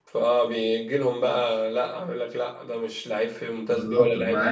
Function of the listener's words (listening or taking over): taking over